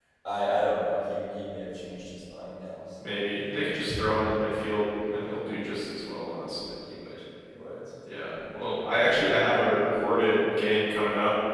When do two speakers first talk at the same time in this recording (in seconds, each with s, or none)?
none